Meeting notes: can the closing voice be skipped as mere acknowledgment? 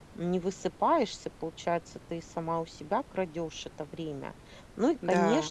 Yes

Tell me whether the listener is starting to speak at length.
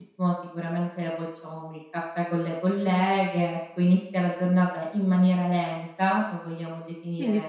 Yes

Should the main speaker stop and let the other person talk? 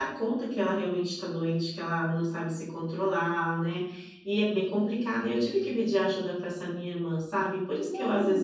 No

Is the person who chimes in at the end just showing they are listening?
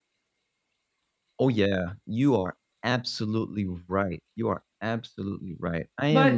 Yes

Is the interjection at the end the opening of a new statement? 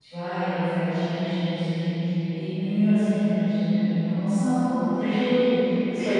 Yes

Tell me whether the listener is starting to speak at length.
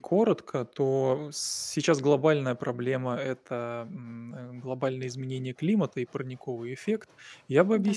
No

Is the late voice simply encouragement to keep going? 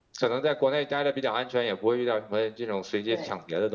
Yes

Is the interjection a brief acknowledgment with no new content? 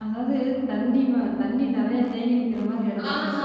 No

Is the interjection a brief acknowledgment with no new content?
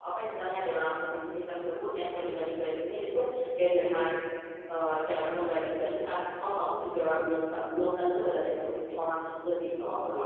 No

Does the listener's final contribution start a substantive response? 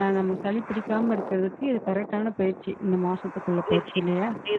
Yes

